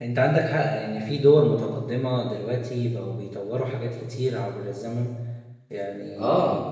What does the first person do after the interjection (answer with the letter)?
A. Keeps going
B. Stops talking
A